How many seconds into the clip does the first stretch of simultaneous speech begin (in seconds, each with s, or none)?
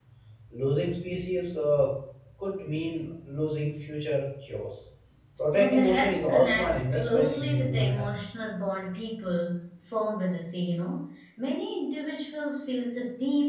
5.5 s